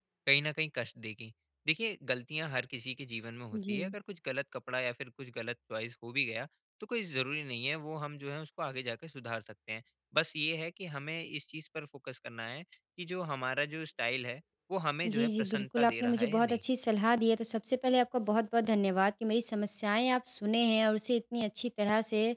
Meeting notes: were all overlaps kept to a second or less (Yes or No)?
No